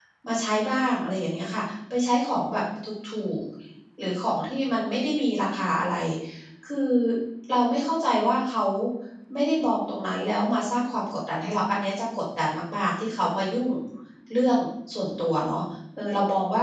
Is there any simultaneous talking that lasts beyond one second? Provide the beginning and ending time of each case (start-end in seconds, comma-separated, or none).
none